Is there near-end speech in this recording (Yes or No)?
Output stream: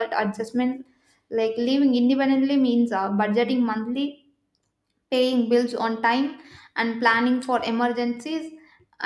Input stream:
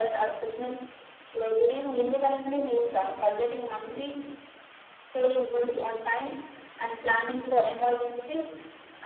No